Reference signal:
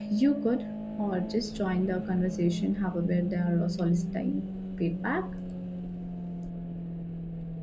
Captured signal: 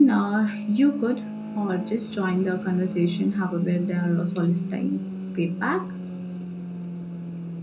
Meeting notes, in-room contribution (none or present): none